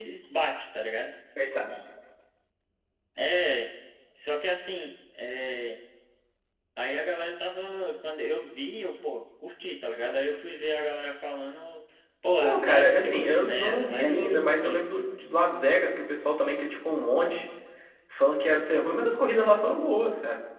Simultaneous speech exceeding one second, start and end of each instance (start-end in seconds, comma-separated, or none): 12.4-14.8